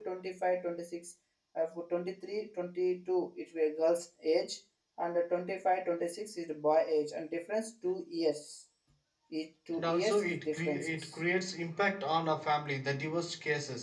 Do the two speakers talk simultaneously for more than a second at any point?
Yes, from 9.7 s

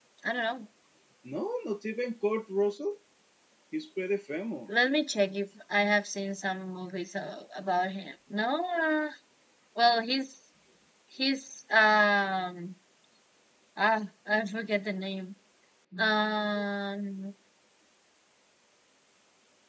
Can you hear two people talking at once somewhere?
No

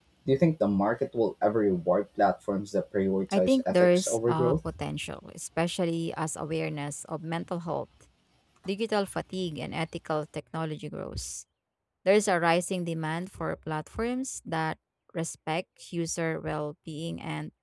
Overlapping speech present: Yes, from 3.3 s

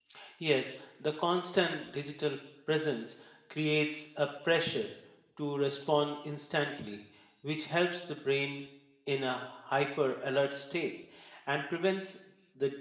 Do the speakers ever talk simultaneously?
No

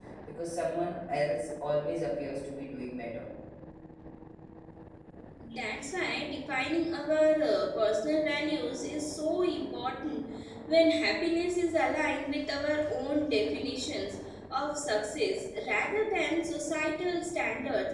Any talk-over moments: No

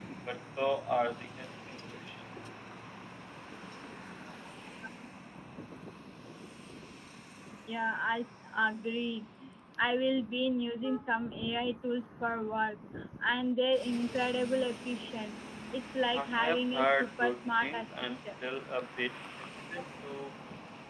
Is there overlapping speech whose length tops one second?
Yes, from 16.1 s

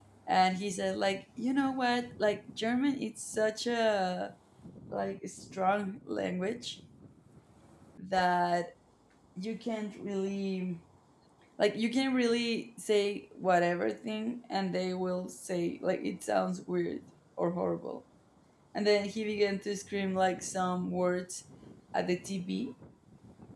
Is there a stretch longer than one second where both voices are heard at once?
No

